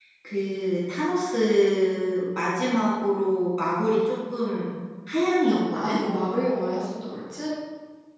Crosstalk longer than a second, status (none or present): none